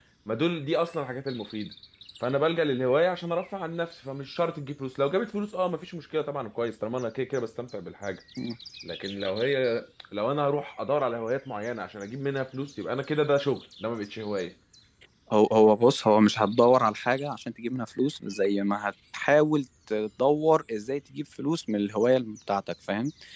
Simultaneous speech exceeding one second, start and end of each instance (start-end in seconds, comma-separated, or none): none